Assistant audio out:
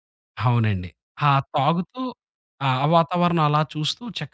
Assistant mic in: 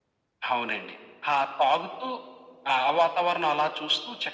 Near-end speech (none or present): none